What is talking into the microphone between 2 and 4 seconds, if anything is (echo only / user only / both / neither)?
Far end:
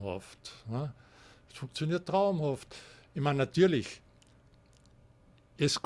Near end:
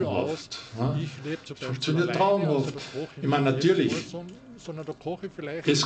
both